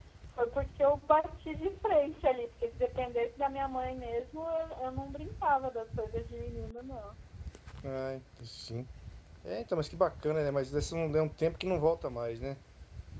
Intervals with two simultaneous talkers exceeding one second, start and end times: none

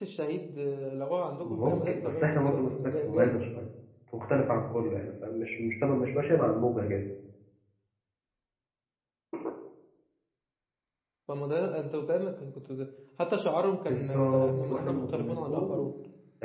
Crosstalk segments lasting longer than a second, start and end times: 1.4-3.4, 13.9-15.8

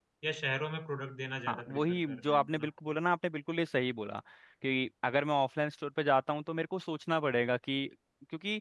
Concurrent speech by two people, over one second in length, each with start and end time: 1.5-2.7

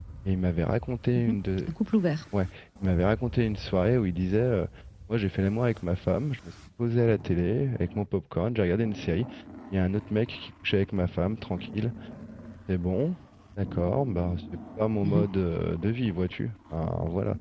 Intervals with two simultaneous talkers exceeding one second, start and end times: none

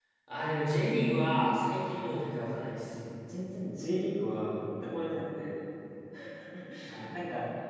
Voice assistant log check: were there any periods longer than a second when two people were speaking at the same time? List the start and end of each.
none

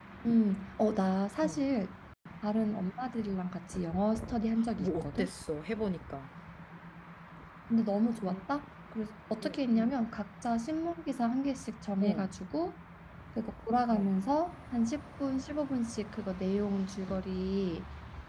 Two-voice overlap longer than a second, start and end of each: none

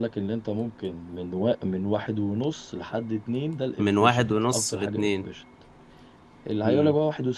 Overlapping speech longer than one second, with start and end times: 3.8-5.3

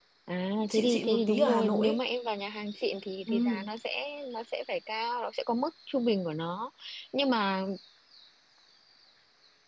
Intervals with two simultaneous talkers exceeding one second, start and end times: 0.7-2.0

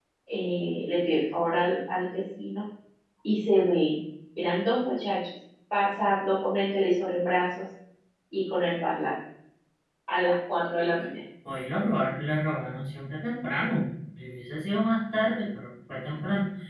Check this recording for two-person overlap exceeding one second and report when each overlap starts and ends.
none

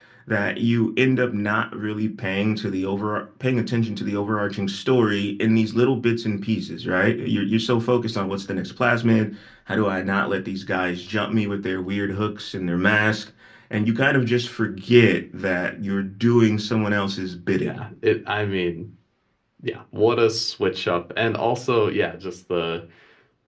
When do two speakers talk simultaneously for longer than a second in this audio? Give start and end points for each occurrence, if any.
none

